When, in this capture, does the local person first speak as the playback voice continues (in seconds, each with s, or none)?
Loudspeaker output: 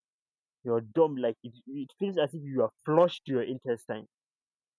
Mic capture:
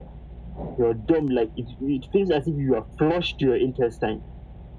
none